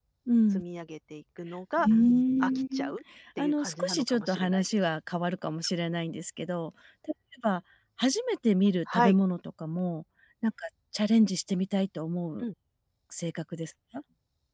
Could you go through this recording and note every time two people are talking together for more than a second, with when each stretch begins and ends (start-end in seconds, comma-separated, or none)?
3.4-4.6